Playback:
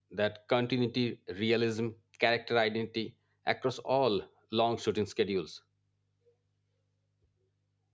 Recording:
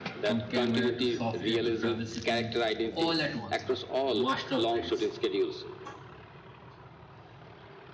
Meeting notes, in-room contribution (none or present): present